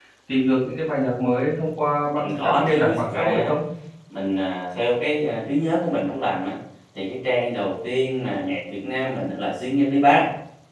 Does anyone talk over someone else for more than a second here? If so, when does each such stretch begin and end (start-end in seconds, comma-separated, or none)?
2.1-3.5